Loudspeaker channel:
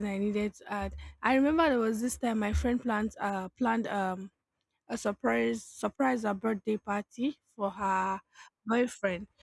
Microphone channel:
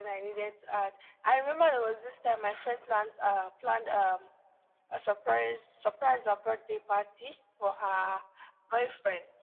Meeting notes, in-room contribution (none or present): none